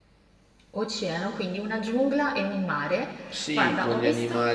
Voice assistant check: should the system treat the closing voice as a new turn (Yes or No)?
Yes